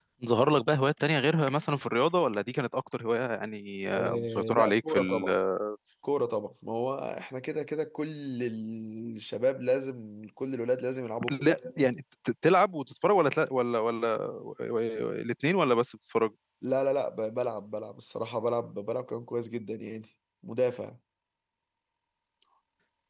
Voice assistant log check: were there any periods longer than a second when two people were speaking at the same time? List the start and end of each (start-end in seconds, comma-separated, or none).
4.0-5.3